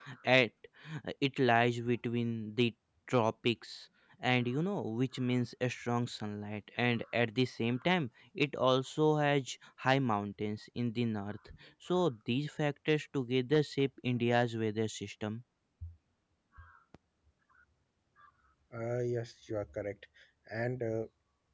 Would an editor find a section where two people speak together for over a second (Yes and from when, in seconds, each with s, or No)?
No